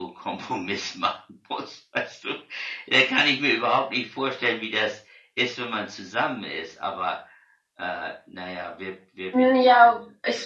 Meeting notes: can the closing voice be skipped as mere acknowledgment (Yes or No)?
No